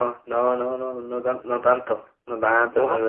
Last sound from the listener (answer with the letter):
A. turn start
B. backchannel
B